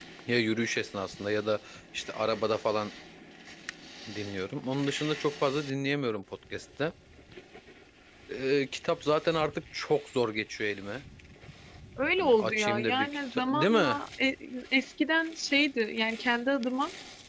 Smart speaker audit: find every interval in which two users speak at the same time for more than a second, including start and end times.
12.2-14.0

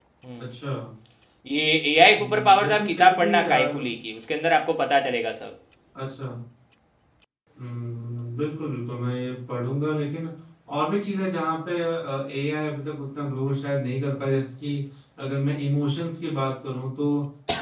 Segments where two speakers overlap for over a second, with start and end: 2.2-3.8

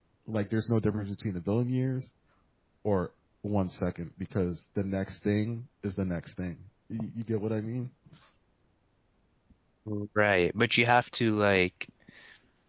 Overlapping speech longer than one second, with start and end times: none

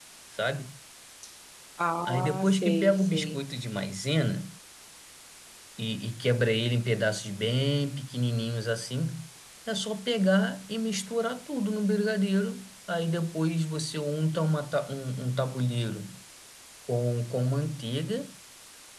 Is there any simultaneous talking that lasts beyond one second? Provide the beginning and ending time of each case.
2.0-3.5

